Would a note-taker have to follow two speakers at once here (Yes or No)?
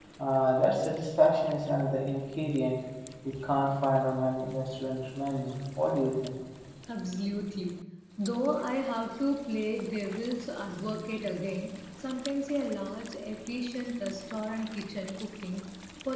No